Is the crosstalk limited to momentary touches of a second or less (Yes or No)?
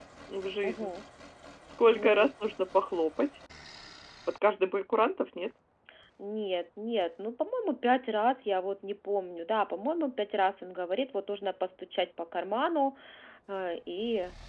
Yes